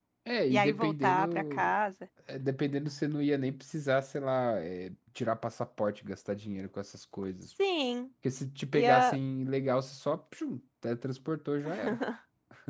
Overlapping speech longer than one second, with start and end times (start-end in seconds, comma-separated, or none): 0.5-1.7